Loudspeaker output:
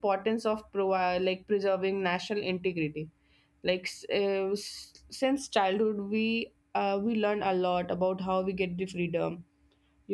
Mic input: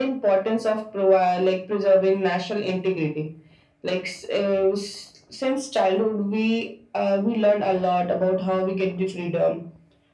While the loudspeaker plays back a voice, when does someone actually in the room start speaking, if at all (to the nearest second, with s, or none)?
none